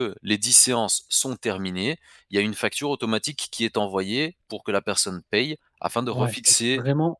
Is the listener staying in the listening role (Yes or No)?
No